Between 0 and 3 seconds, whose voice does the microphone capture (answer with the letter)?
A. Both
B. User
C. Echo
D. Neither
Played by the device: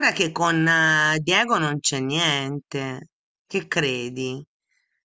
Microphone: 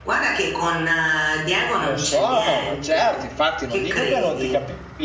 A